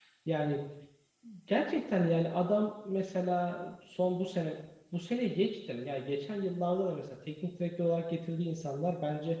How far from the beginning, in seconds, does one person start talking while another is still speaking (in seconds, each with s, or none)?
none